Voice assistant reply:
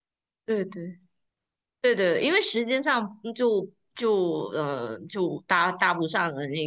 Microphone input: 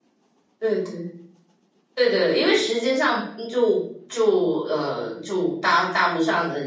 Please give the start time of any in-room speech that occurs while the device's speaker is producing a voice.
none

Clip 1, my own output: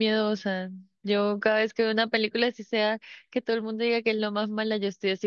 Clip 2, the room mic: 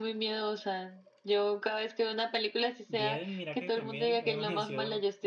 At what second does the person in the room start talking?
2.9 s

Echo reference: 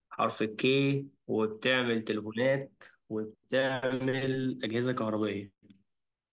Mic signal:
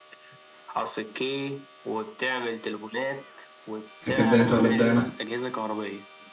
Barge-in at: 4.0 s

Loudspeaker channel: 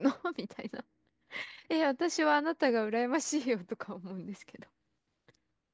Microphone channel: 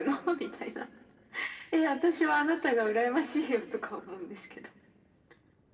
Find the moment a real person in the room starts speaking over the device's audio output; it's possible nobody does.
none

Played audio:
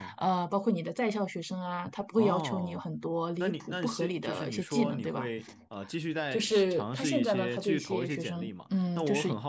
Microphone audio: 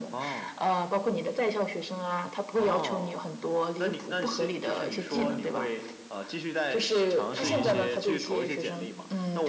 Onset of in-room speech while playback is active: 7.4 s

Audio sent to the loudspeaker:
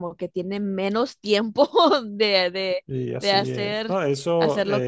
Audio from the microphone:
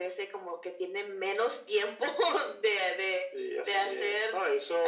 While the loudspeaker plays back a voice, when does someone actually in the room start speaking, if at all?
none

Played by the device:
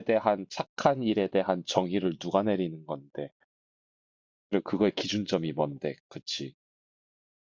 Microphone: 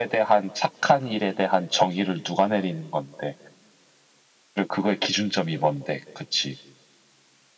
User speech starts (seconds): none

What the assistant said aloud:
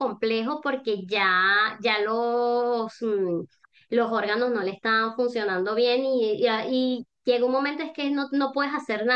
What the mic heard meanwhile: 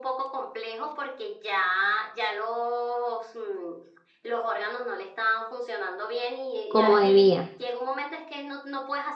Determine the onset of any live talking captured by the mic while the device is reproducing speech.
6.7 s

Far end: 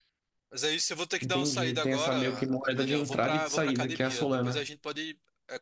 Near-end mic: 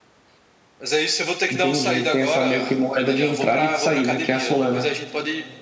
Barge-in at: none

